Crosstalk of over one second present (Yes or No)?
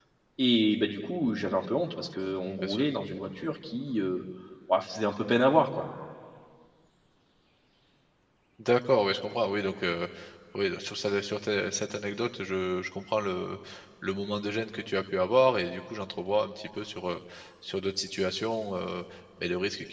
No